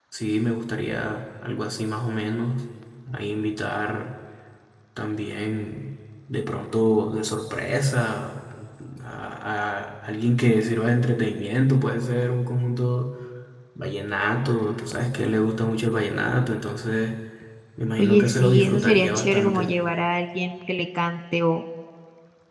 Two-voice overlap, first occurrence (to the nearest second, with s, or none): 18 s